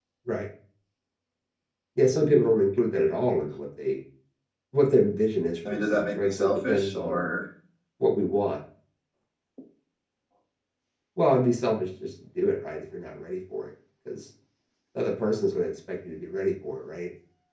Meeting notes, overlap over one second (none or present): present